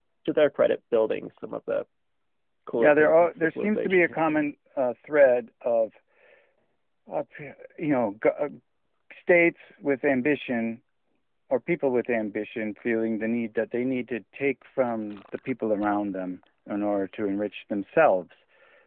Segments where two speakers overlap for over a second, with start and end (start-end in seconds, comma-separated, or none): 2.8-4.5